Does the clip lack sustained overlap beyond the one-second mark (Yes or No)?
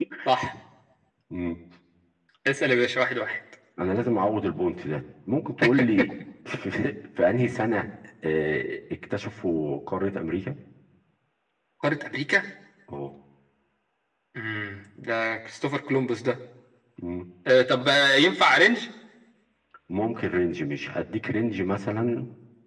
Yes